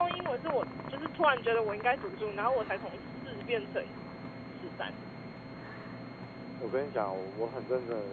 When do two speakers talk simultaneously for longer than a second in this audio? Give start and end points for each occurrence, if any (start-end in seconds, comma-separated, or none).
none